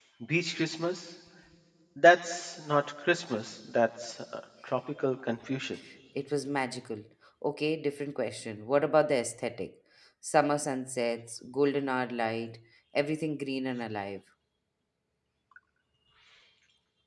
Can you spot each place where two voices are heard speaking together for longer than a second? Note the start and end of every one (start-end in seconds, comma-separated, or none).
none